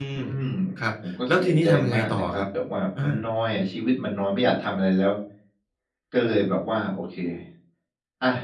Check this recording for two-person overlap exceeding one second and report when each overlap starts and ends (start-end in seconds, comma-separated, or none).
1.1-2.5